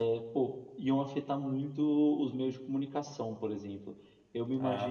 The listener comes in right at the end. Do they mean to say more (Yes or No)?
No